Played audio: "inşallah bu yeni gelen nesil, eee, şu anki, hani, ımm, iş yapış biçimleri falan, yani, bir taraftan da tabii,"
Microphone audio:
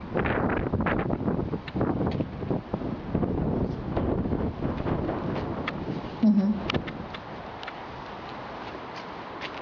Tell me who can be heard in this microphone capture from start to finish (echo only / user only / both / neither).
user only